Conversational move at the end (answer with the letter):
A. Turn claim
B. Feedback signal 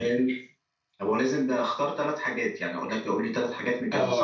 A